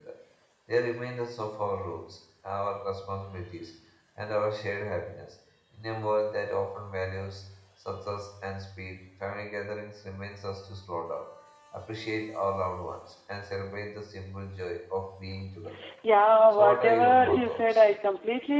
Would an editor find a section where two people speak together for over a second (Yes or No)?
Yes